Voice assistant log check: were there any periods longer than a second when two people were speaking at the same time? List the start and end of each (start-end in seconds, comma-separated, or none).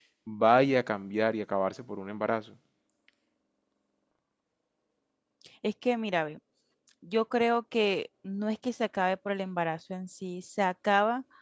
none